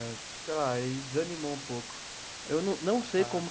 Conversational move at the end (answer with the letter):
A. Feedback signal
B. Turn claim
A